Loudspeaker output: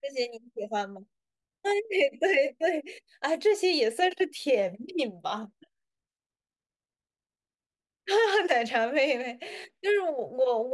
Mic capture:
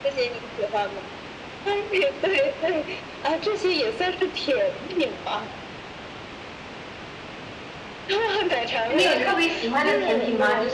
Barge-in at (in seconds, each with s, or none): 9.0 s